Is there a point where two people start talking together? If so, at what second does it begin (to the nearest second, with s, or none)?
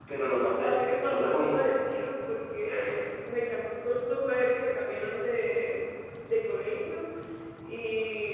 1 s